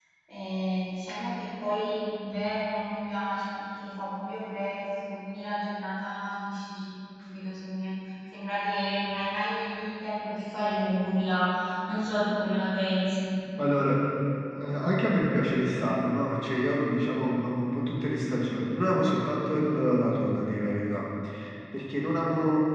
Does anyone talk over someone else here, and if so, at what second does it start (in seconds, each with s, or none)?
none